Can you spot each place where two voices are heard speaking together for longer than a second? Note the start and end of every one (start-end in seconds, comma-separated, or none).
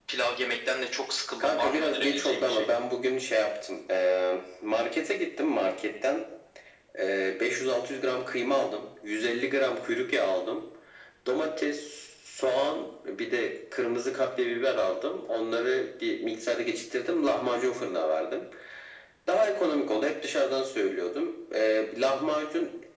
1.4-2.7